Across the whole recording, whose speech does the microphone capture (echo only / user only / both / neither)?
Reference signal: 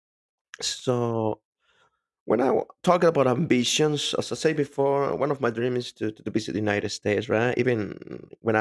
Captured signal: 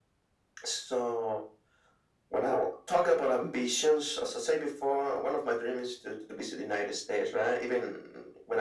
echo only